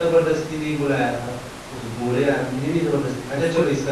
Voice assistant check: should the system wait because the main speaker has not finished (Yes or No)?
Yes